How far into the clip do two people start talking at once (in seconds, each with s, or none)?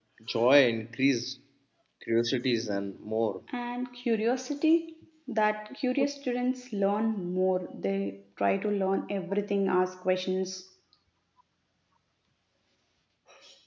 none